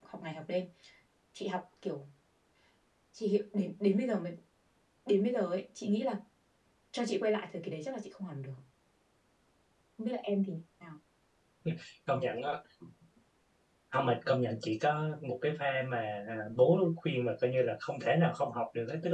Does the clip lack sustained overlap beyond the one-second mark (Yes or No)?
Yes